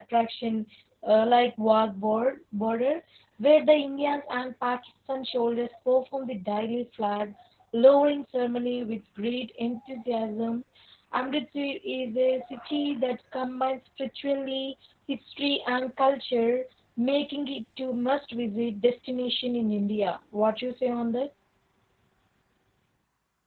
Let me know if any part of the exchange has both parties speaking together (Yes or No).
No